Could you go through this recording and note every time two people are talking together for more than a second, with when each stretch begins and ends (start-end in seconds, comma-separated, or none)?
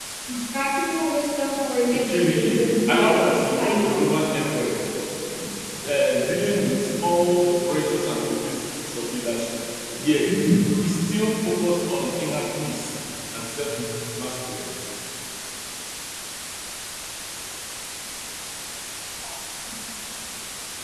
1.9-4.2